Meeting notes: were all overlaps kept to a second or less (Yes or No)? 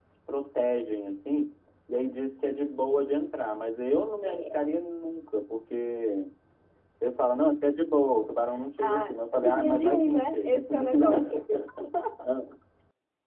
No